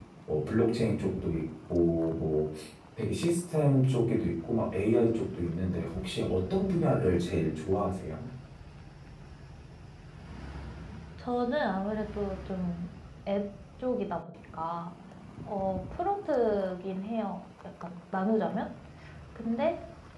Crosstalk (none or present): none